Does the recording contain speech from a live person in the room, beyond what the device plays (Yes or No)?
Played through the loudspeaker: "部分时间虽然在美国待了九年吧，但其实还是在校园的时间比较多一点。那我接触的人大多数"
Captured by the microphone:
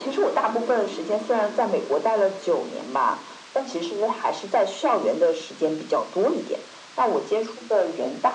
No